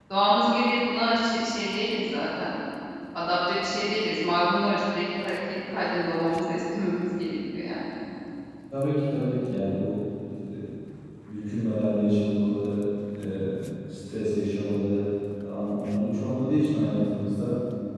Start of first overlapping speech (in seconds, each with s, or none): none